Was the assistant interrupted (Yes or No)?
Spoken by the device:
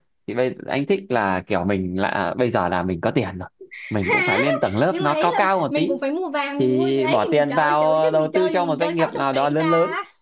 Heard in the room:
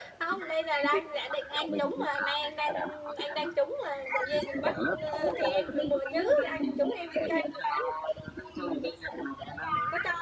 Yes